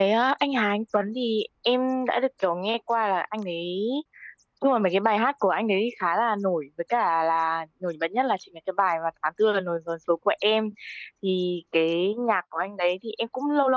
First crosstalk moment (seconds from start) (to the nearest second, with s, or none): none